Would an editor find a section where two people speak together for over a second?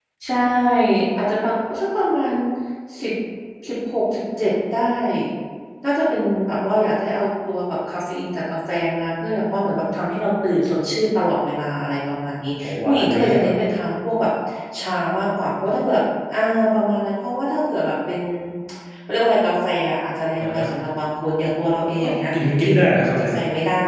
Yes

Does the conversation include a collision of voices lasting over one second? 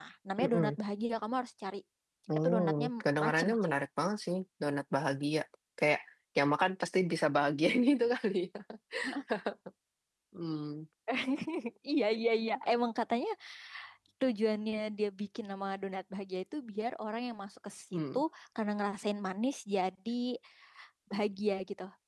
Yes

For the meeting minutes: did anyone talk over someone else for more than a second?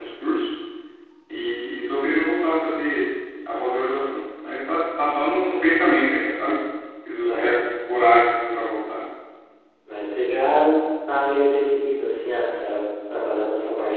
No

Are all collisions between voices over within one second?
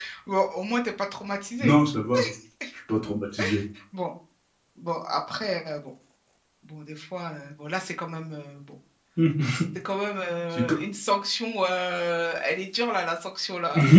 Yes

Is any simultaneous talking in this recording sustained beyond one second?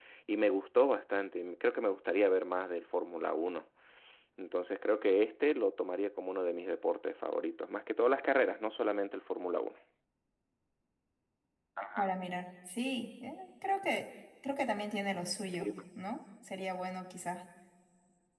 No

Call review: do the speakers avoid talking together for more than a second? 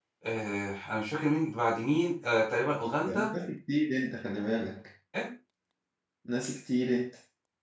Yes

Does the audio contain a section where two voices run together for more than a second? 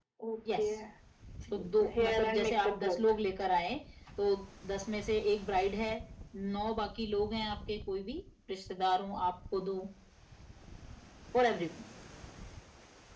Yes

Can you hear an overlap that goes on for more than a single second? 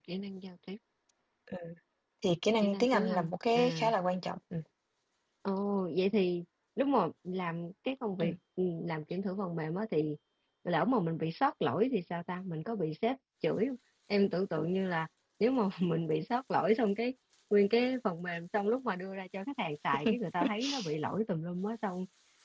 Yes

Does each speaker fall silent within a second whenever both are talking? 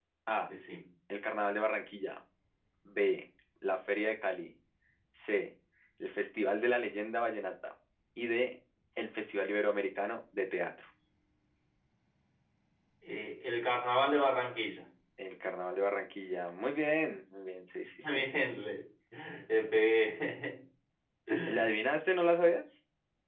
Yes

